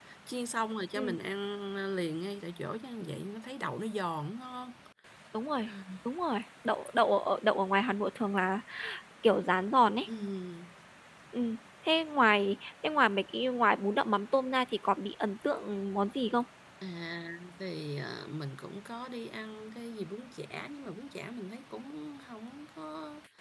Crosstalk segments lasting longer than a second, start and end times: none

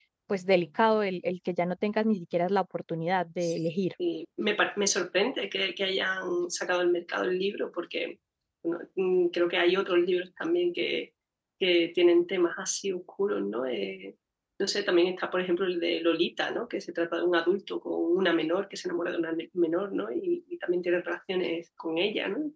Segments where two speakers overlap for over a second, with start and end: none

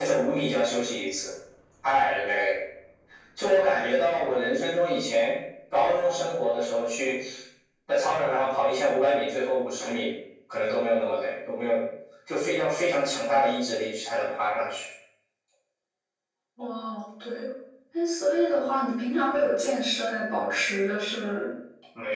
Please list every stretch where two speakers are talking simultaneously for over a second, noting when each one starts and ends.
none

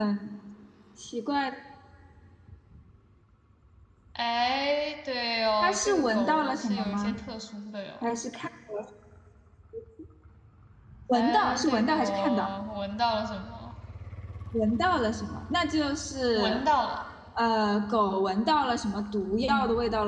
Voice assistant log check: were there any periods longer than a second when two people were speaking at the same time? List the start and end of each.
5.6-7.1, 11.1-12.5

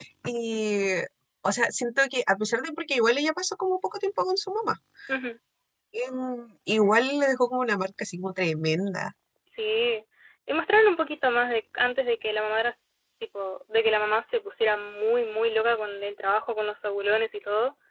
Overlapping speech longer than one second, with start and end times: none

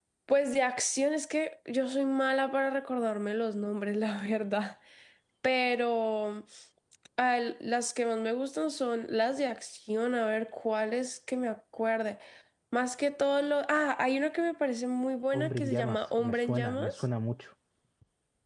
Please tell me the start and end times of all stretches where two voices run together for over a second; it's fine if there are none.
15.3-17.0

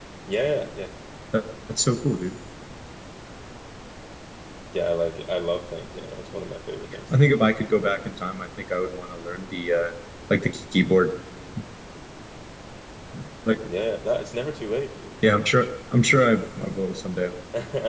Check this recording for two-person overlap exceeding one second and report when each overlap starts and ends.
none

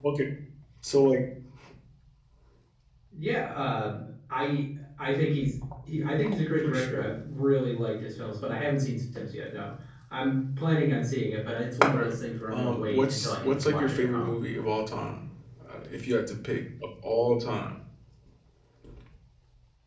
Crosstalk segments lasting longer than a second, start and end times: 12.5-14.4

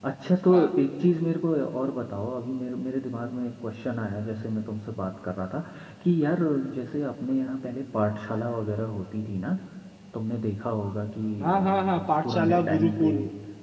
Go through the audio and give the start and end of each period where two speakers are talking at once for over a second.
11.4-13.1

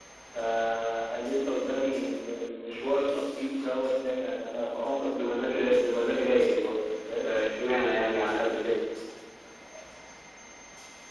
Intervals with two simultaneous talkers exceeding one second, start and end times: none

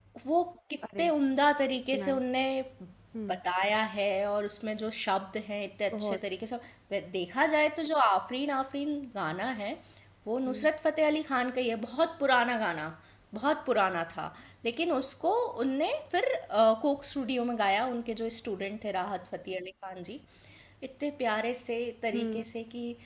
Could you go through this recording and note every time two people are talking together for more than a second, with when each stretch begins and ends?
none

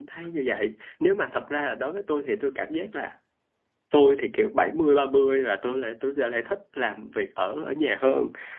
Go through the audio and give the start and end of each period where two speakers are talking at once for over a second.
none

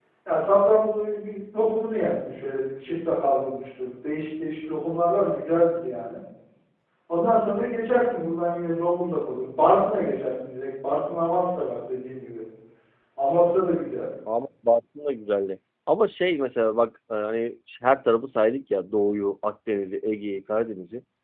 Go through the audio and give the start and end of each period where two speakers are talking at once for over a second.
none

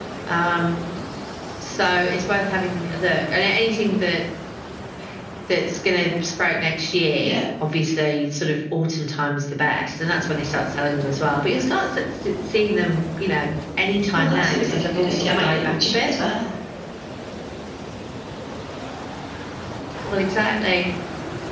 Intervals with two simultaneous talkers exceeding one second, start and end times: 14.2-16.1

